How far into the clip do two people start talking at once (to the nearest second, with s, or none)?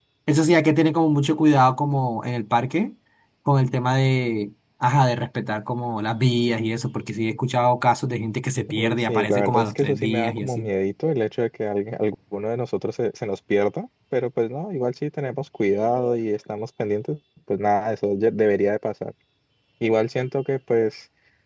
9 s